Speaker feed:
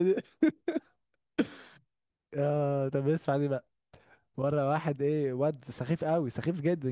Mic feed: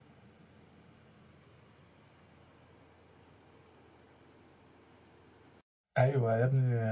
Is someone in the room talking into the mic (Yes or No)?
Yes